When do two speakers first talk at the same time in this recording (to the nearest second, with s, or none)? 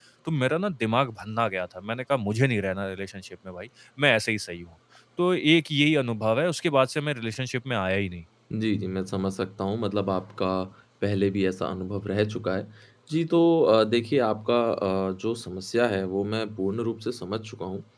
none